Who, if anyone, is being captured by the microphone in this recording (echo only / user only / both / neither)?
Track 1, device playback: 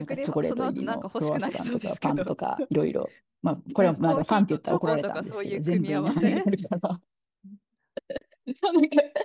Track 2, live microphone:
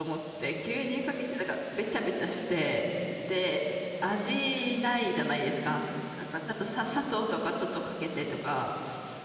user only